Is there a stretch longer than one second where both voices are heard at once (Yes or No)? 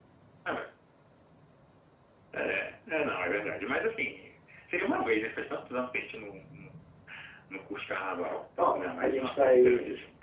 Yes